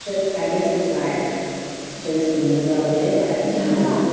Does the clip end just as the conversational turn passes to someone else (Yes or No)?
No